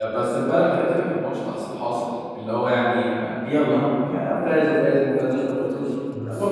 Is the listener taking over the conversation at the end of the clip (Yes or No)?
Yes